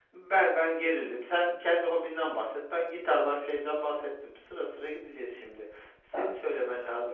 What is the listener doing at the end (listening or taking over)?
listening